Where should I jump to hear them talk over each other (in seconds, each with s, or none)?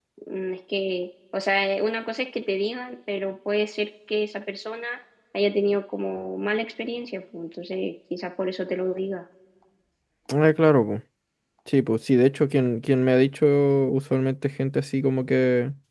none